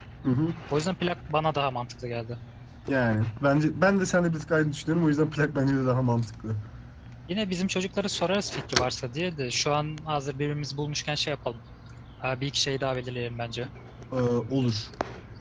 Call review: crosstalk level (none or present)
none